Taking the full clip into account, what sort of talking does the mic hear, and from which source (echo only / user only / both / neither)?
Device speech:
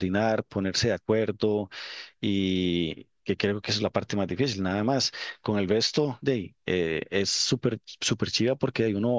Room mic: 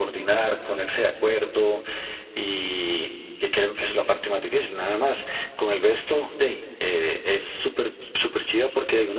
echo only